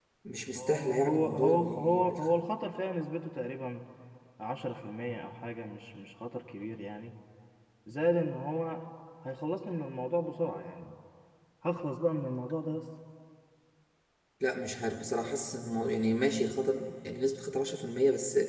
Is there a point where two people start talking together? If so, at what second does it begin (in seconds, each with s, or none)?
0.6 s